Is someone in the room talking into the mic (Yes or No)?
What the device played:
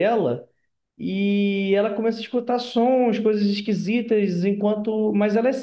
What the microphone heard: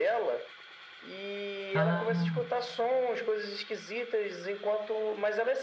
Yes